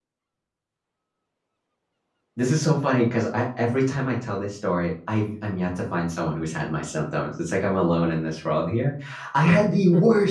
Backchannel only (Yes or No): Yes